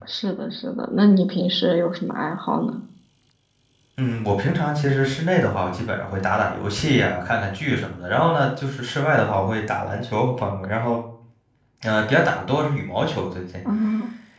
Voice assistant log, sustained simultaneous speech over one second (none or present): none